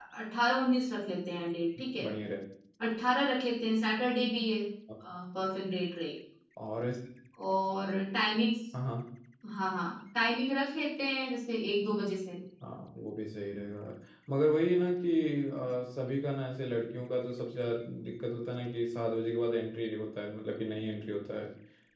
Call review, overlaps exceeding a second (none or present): none